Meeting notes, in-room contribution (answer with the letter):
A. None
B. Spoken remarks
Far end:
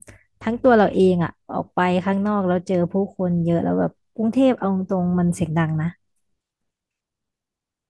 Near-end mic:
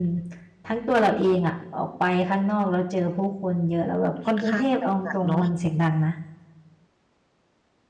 B